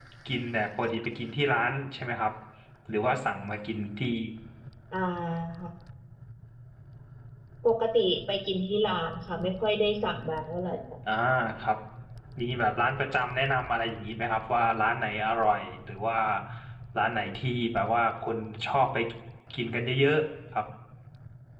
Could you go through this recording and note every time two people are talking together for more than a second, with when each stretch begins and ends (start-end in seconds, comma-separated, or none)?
none